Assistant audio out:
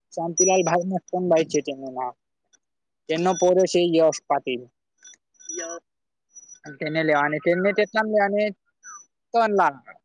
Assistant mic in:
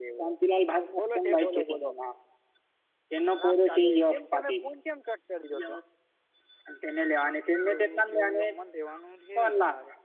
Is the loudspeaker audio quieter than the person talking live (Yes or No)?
No